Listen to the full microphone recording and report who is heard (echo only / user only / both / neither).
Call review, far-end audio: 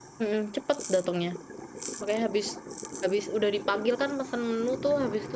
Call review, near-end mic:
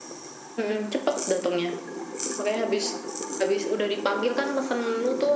echo only